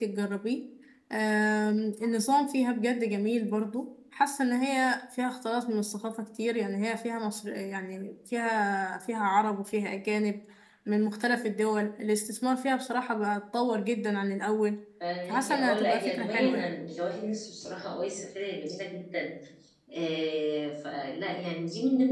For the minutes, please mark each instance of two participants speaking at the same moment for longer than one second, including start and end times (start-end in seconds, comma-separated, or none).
15.3-16.7